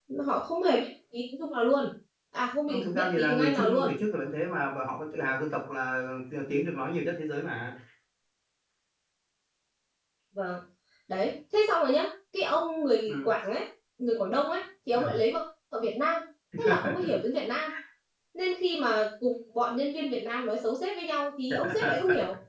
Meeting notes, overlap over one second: present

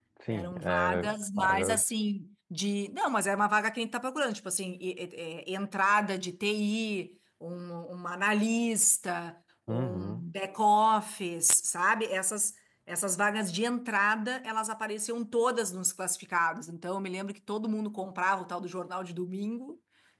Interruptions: present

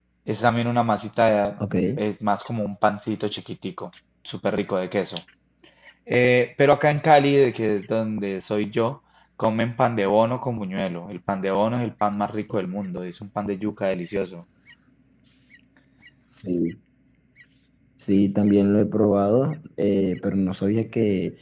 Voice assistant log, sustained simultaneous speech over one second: none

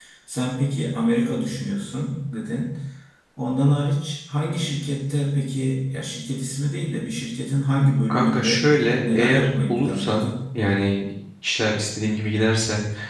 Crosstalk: present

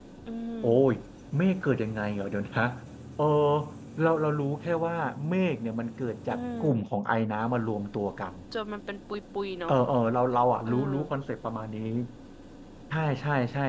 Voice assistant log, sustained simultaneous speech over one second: none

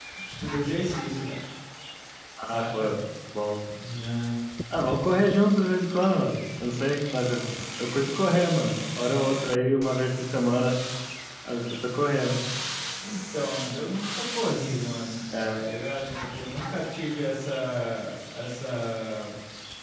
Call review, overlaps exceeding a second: none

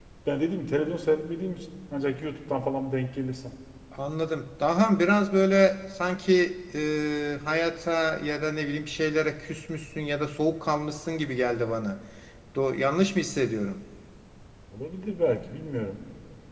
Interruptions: none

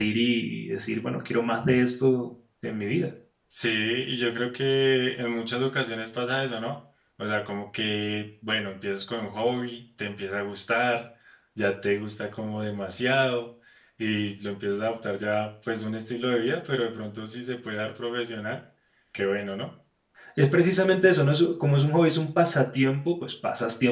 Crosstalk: none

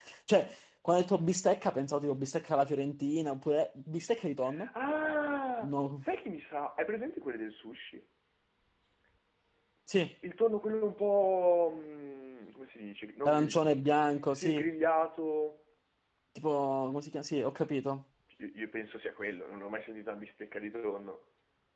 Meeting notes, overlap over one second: none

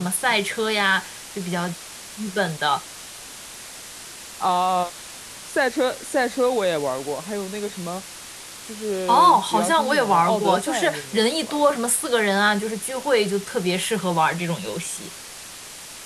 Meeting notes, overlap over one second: present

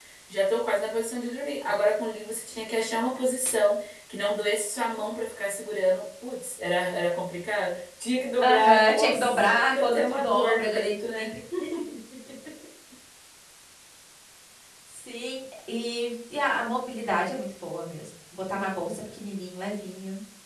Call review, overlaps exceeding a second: present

